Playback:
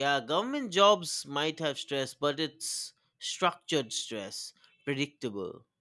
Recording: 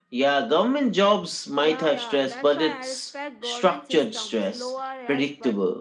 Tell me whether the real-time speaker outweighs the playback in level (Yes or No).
No